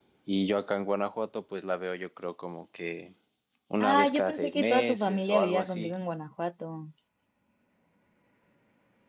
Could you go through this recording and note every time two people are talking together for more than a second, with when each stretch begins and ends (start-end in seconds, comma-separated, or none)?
3.8-5.9